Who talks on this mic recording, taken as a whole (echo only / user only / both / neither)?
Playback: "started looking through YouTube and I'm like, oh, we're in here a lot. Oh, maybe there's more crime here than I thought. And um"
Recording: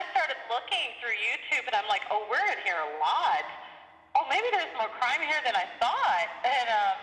echo only